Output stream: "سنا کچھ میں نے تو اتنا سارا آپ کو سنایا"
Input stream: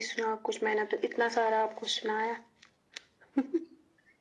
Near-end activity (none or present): none